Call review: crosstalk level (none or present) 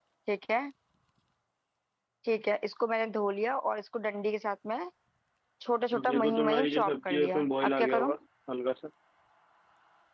present